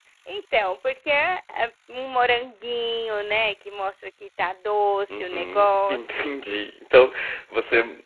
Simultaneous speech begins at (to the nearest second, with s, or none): 5 s